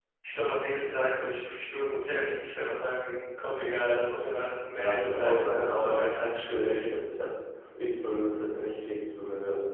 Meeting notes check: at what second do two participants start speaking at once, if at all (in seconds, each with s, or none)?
4.7 s